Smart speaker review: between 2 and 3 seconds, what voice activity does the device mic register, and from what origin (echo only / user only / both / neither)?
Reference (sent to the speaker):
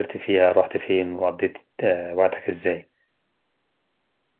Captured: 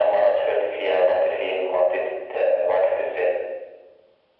echo only